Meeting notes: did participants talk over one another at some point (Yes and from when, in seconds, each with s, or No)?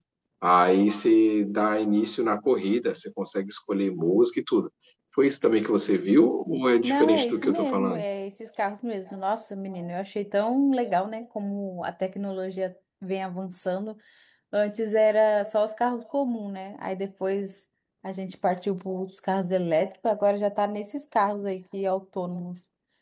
Yes, from 6.8 s